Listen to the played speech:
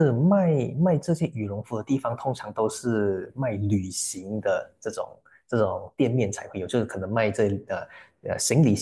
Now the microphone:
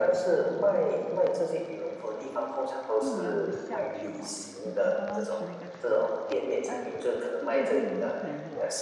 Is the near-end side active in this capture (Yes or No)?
Yes